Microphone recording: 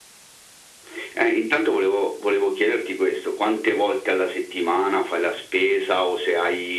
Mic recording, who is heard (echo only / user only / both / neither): echo only